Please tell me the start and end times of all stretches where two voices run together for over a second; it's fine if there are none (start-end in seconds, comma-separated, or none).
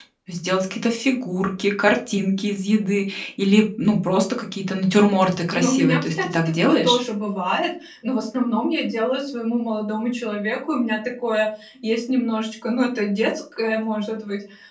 5.5-7.0